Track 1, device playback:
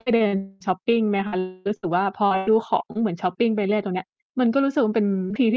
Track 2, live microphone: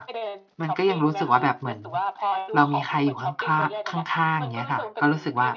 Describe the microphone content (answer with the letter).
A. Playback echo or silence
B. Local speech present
B